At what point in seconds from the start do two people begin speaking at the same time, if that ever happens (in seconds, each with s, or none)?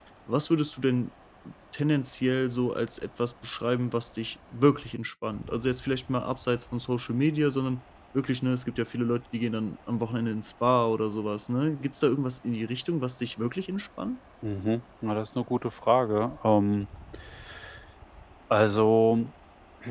none